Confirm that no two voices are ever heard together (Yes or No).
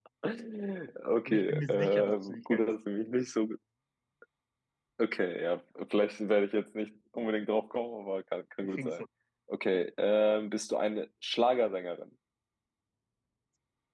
No